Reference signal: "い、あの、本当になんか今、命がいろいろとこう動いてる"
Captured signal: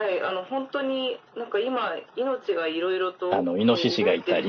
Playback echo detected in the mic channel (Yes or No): Yes